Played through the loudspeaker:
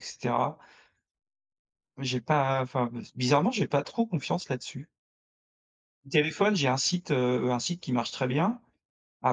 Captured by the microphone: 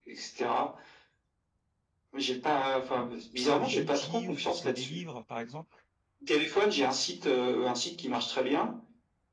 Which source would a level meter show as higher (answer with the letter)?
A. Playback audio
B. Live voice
A